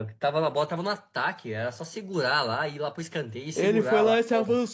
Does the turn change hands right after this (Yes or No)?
Yes